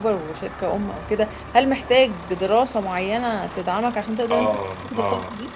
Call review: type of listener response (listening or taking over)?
taking over